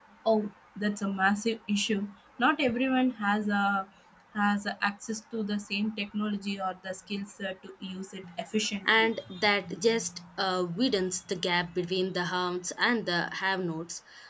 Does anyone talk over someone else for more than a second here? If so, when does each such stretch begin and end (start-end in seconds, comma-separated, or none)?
none